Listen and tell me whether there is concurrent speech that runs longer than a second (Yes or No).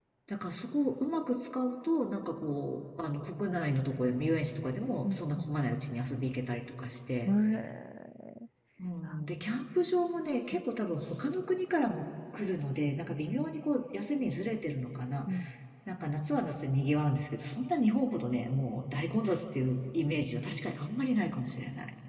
No